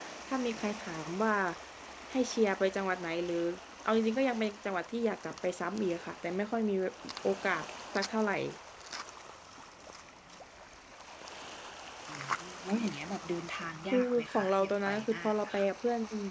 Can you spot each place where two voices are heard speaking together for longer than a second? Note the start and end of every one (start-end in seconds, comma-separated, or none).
13.9-15.7